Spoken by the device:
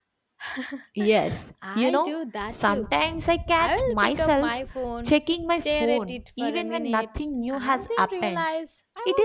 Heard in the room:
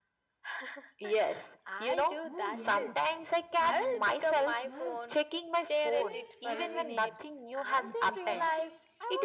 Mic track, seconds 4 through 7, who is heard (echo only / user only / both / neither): both